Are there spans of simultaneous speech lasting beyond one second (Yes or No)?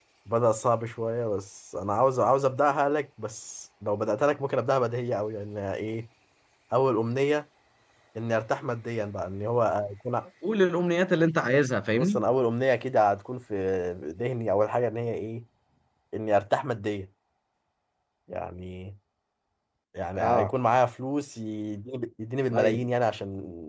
No